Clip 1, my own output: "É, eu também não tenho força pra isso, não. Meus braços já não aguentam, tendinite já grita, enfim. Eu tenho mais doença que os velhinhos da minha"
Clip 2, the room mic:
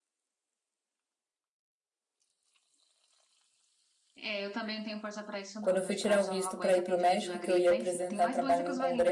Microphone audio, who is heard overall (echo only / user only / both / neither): both